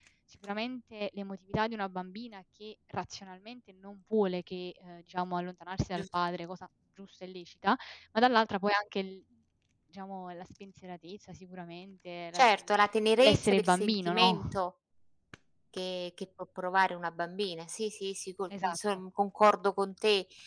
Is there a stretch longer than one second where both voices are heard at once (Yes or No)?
Yes